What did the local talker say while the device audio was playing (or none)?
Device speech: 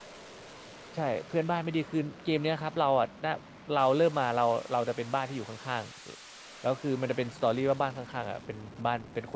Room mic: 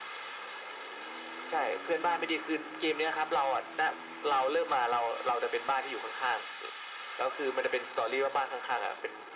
none